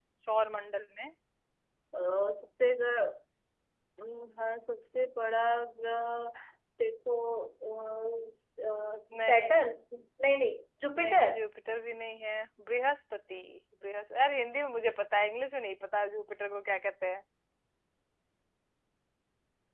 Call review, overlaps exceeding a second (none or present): none